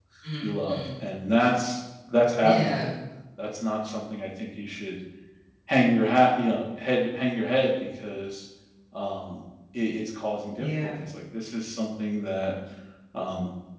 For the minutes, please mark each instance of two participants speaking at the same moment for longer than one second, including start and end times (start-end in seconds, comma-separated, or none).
none